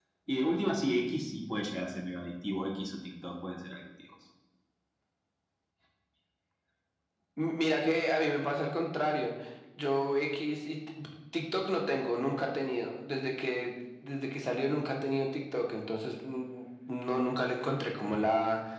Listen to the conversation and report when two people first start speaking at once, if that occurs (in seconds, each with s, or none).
none